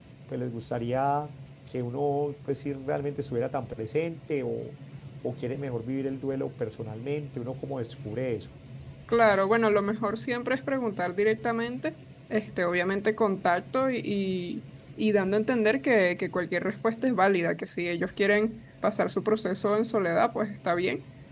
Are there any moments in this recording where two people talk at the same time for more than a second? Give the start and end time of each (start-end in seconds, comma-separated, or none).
none